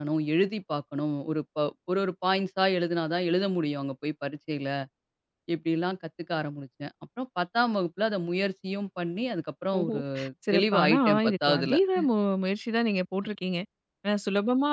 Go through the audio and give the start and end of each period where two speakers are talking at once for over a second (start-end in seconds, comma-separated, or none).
10.6-11.8